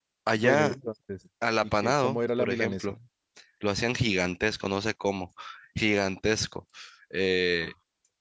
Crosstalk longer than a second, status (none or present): present